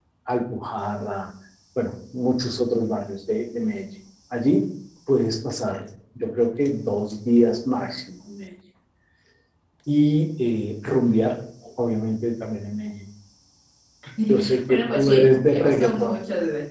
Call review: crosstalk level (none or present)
present